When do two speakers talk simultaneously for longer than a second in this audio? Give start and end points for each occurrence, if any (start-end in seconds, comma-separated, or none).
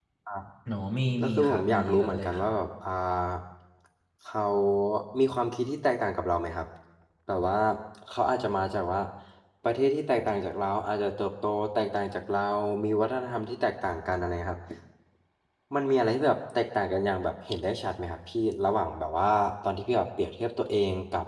1.2-2.5